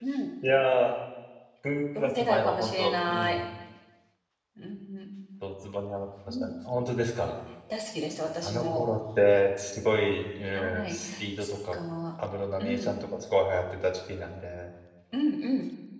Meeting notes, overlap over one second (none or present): present